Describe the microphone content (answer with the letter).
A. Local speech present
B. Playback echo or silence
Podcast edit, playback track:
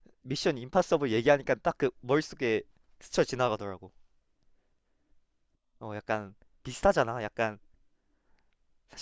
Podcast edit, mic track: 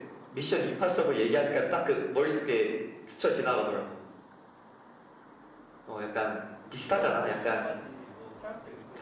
A